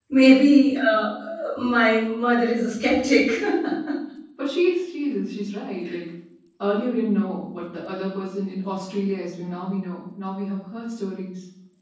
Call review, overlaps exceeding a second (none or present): none